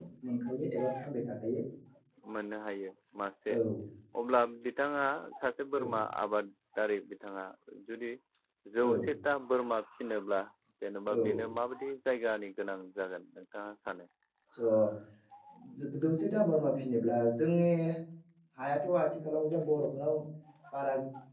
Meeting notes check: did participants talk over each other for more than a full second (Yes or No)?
No